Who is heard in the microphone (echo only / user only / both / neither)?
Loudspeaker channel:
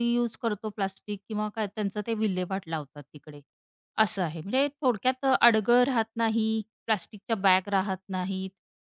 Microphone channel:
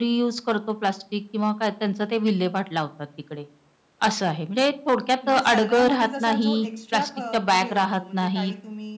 both